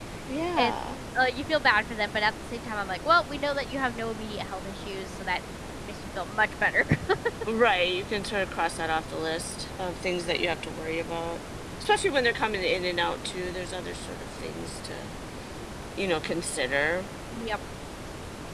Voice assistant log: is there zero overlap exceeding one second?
Yes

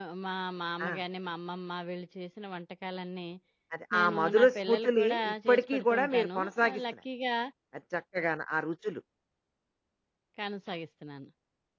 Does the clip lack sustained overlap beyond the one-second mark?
No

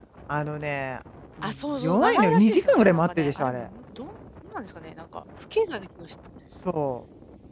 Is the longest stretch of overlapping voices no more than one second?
No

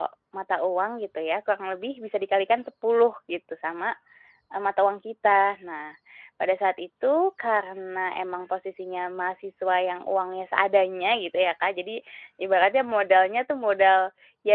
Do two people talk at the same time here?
No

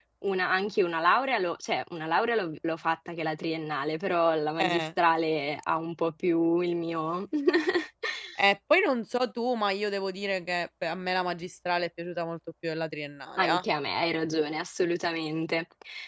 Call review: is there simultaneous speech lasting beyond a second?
No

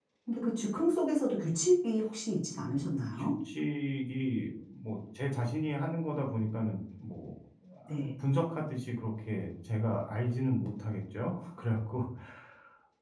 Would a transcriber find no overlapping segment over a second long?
Yes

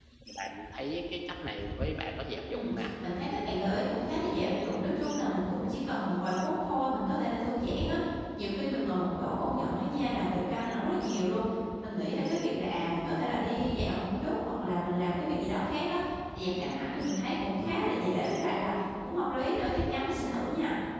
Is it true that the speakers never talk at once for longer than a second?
Yes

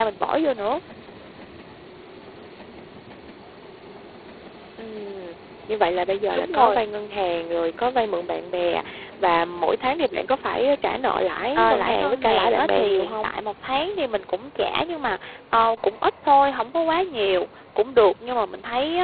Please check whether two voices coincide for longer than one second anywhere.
Yes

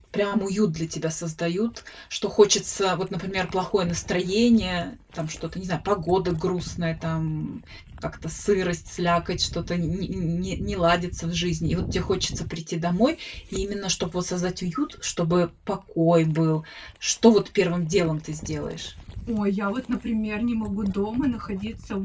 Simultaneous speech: No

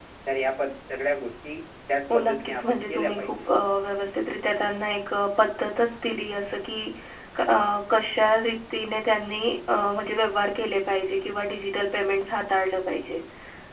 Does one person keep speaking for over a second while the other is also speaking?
Yes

